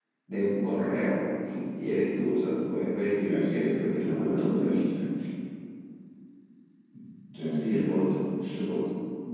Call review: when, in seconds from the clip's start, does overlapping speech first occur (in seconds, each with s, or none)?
3.3 s